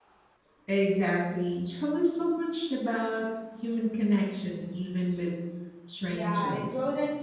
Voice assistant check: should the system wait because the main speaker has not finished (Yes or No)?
No